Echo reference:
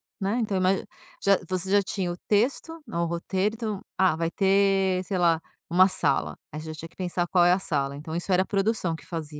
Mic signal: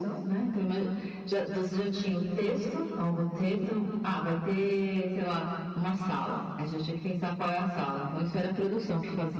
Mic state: echo only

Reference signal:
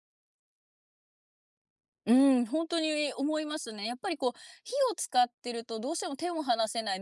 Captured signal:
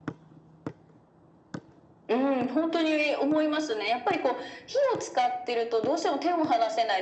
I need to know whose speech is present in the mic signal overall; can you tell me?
echo only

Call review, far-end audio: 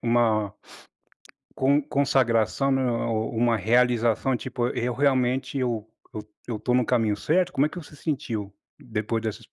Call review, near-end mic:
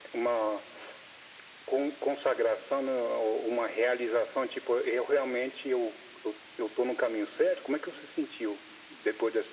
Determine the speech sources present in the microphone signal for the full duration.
echo only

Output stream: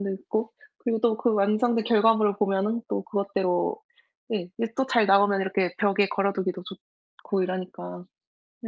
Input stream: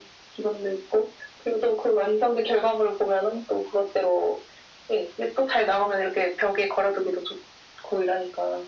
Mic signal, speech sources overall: echo only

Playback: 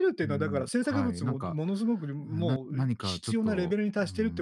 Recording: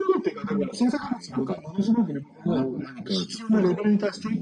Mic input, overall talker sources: echo only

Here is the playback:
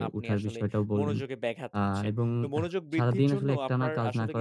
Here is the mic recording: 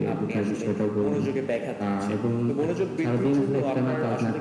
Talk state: echo only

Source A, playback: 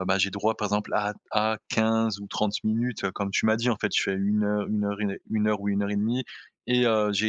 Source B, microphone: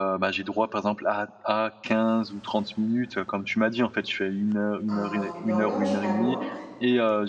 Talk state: both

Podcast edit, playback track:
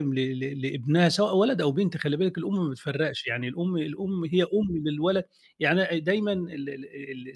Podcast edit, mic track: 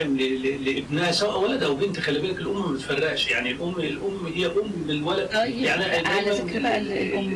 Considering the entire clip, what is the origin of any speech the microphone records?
both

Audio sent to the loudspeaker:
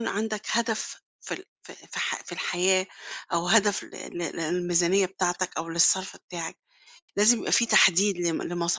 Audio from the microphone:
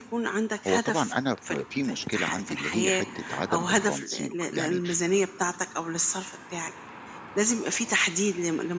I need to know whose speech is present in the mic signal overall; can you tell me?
both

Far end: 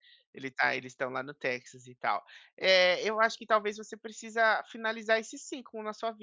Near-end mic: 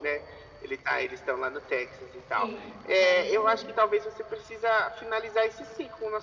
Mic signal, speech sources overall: both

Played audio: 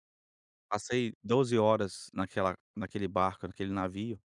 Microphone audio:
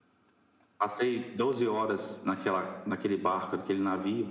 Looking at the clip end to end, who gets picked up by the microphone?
echo only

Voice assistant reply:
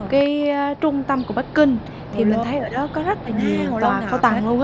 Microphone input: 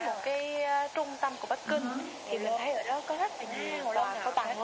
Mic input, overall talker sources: both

